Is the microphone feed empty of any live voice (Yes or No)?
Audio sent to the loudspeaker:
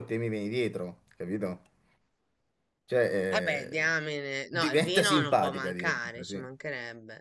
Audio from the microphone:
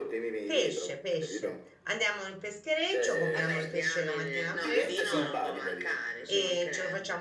No